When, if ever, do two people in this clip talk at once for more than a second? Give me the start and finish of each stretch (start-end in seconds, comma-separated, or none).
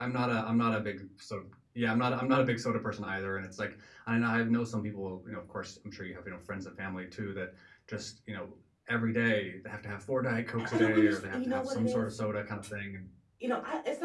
10.6-12.1